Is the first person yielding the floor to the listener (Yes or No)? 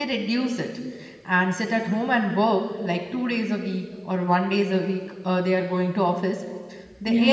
No